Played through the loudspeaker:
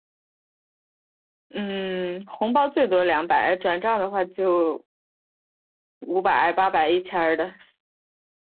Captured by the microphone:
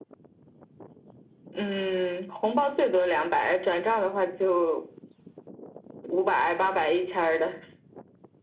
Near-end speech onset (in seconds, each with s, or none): none